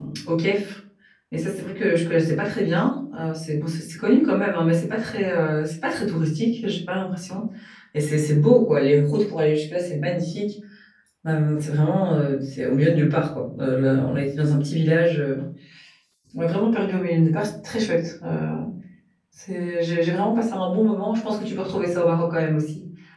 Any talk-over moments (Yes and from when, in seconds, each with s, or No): No